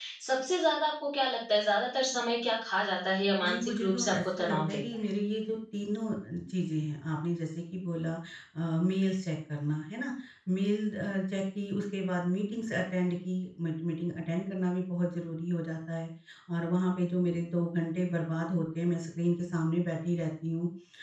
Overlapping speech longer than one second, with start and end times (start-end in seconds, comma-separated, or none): 3.4-4.8